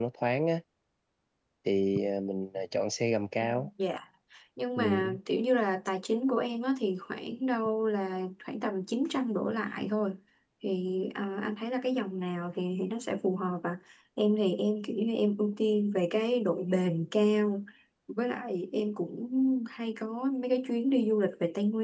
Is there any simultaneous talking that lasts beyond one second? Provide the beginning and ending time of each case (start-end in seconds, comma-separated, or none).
none